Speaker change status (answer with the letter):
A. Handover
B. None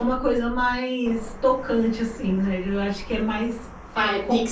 A